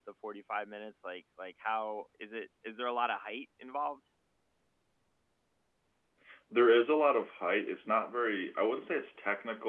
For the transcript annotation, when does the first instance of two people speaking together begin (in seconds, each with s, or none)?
none